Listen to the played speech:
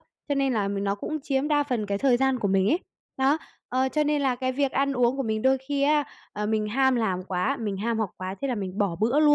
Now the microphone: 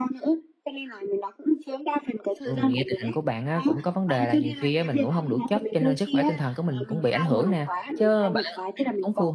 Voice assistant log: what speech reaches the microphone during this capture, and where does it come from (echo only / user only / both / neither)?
both